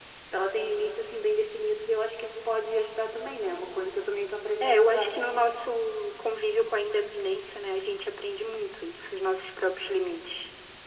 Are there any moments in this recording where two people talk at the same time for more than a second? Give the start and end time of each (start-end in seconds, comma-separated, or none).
none